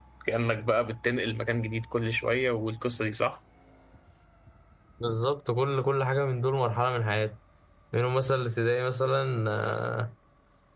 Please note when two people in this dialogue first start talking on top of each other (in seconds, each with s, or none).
none